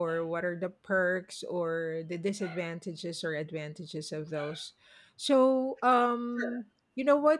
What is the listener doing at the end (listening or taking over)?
listening